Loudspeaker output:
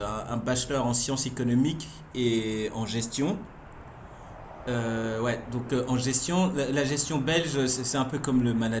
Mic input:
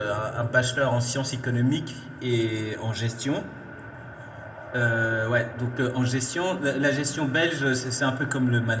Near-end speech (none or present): none